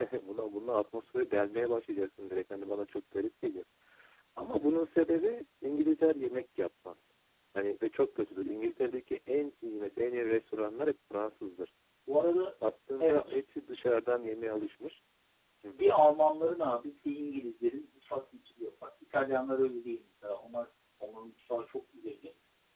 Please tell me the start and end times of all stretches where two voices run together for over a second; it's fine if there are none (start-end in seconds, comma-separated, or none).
none